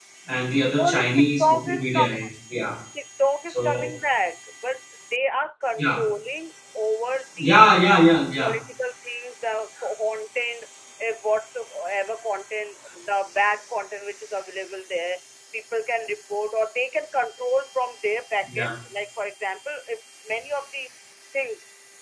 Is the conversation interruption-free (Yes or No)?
No